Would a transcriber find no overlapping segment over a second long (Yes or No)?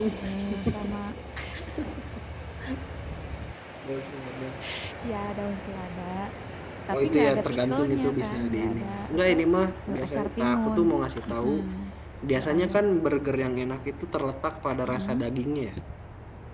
No